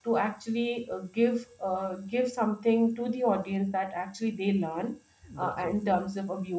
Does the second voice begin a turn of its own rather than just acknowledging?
No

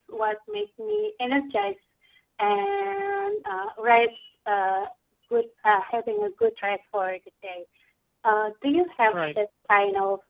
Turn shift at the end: No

